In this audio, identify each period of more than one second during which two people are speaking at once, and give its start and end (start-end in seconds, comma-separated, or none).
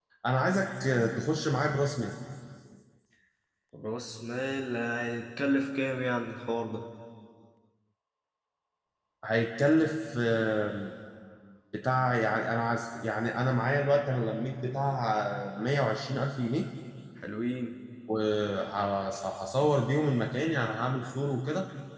none